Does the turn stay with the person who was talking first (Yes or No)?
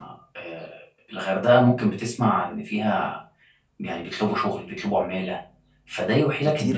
Yes